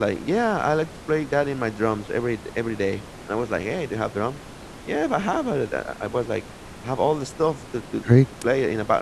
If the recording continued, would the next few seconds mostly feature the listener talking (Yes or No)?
No